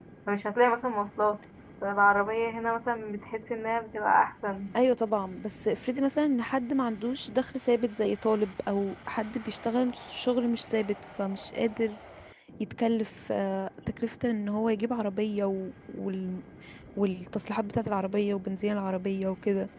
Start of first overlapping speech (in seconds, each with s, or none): none